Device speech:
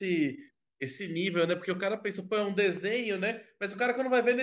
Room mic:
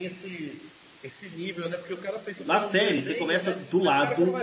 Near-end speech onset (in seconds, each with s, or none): 2.4 s